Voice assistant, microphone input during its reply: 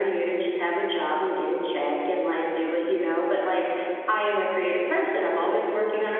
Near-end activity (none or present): none